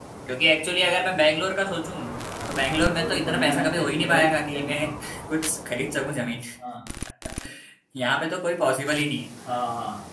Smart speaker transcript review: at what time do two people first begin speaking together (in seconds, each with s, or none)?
2.5 s